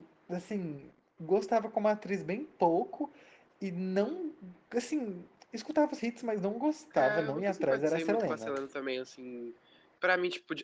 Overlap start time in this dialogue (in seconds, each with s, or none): 7.0 s